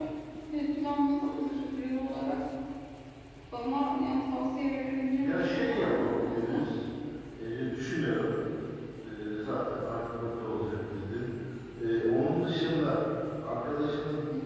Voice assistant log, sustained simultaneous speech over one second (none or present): present